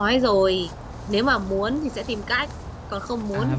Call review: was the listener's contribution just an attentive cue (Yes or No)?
No